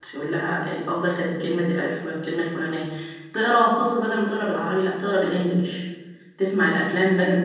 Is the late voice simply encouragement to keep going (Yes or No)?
Yes